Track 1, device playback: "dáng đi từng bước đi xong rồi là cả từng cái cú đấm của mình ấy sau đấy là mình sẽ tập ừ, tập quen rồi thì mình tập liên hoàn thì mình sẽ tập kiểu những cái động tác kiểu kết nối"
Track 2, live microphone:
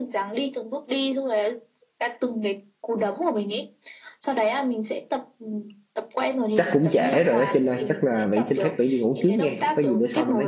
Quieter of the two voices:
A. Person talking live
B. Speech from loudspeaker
B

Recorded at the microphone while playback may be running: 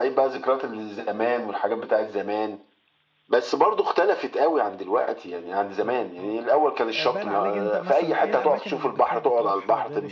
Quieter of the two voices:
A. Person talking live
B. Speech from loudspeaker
A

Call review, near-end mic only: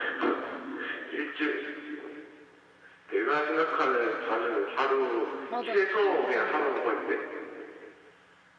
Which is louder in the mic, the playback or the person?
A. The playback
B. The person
A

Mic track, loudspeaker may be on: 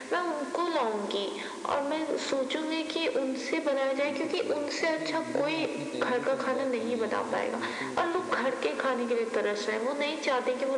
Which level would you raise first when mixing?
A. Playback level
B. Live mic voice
B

